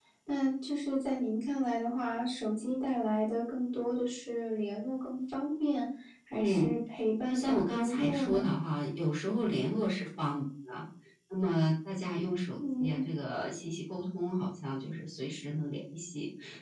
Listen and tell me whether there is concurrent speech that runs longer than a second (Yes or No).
Yes